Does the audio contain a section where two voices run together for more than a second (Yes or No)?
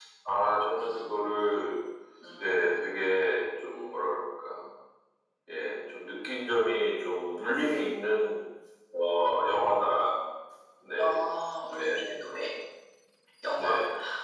No